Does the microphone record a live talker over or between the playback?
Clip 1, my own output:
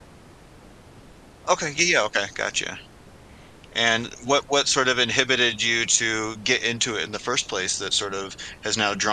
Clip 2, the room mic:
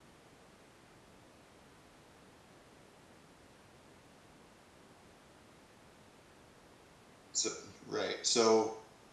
Yes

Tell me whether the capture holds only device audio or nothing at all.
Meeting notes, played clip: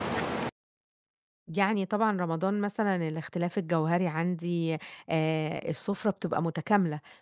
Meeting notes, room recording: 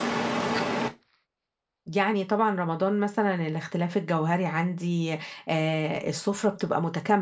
Yes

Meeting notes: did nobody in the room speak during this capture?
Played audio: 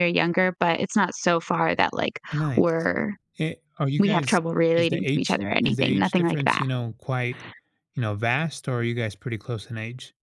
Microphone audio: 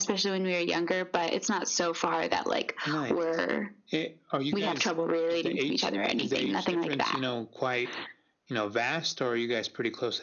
Yes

